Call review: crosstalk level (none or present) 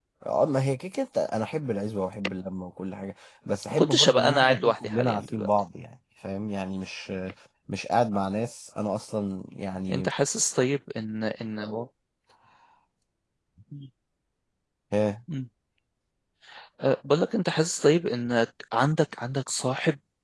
present